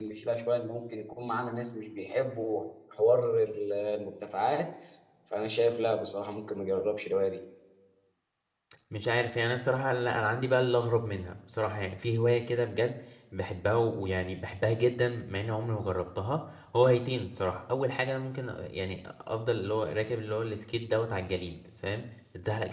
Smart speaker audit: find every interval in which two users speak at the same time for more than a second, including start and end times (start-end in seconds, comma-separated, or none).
none